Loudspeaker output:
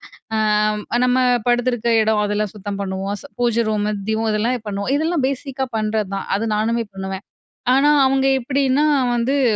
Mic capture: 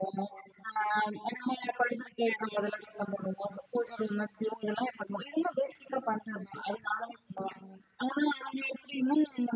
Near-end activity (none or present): none